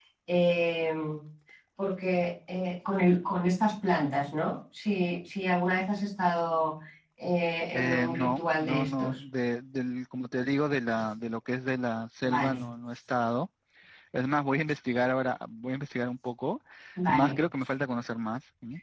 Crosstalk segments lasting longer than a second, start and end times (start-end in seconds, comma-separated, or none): 7.7-9.2